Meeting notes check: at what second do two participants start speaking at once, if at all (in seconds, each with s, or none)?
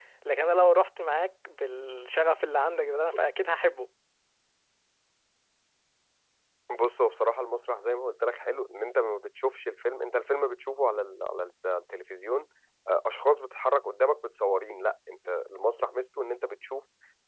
none